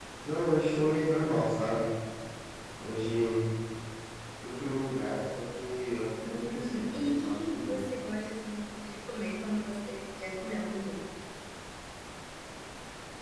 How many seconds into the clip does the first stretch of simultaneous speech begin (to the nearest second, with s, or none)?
6 s